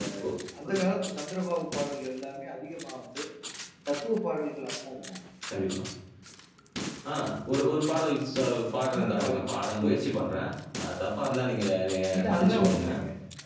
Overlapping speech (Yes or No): Yes